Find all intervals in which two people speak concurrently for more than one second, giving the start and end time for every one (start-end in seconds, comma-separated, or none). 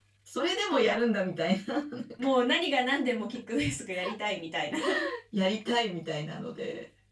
none